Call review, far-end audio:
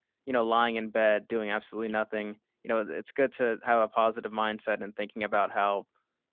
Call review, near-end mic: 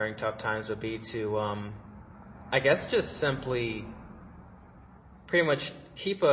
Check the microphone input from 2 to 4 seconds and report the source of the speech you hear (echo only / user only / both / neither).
user only